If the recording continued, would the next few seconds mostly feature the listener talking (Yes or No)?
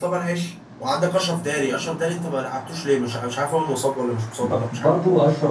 Yes